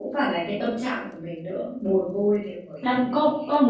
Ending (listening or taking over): taking over